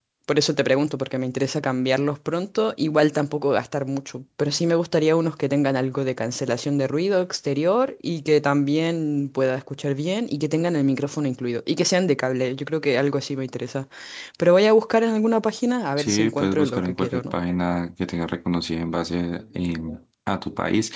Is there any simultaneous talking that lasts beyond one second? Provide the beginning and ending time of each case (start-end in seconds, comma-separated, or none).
16.0-17.3